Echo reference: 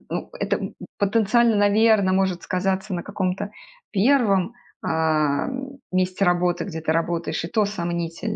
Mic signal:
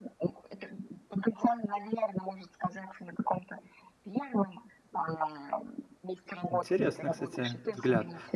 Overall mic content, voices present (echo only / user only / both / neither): both